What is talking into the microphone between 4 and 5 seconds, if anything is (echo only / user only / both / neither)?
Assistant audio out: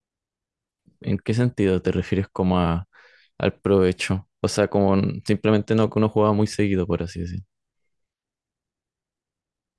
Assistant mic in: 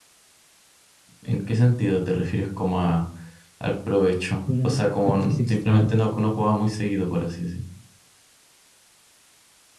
both